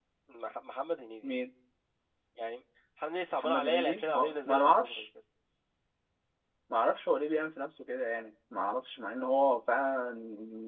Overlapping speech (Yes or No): Yes